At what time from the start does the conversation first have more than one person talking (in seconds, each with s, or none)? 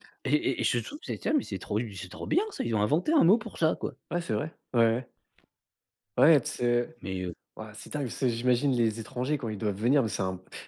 none